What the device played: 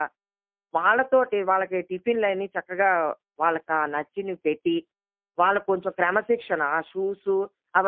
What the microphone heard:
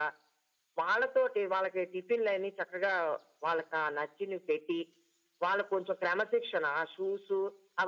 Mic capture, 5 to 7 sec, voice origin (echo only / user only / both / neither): echo only